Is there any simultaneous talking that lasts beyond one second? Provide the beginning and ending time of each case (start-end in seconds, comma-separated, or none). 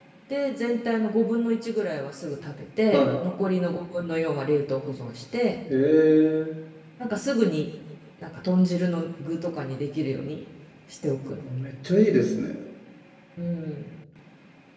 none